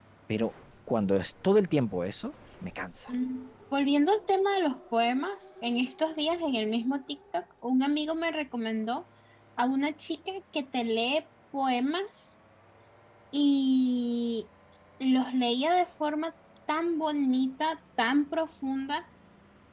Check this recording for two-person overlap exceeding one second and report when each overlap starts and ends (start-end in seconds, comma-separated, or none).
none